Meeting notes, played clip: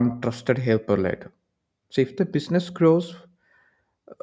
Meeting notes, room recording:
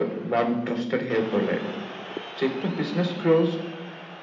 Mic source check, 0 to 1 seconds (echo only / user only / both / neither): echo only